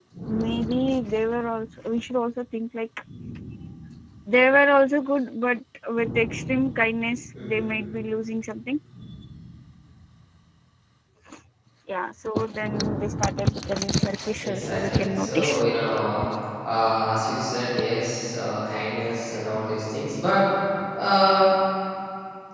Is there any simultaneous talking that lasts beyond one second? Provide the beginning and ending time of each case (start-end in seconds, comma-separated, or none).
14.4-15.6